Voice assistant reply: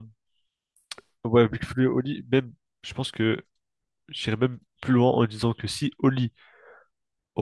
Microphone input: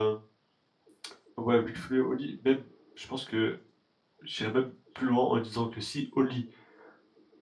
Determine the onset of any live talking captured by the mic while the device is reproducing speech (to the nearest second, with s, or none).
none